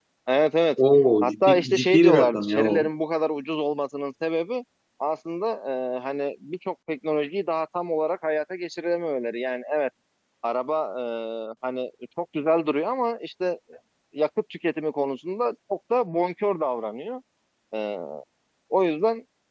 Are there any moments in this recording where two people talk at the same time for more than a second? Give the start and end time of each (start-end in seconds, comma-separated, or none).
1.2-2.7